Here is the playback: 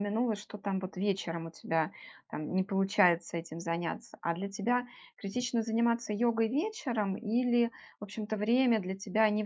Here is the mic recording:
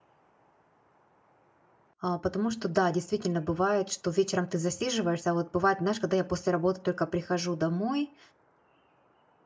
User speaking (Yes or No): Yes